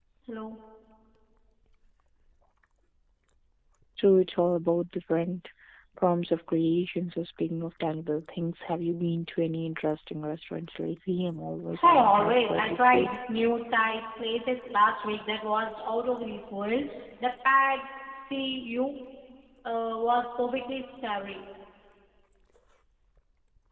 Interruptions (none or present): present